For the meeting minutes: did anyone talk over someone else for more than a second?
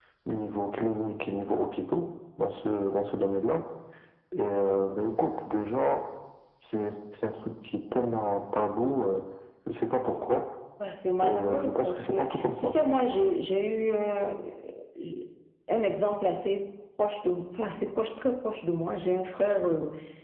Yes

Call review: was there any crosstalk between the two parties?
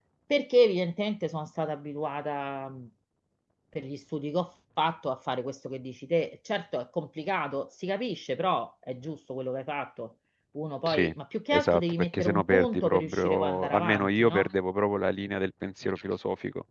Yes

